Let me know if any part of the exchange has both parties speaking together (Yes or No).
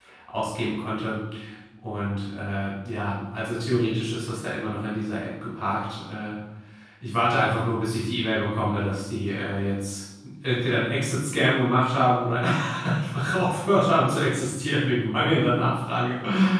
No